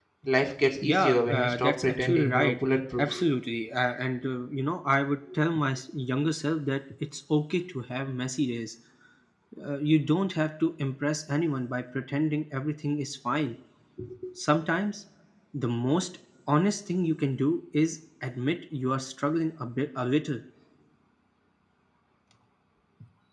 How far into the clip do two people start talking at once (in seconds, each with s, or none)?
0.8 s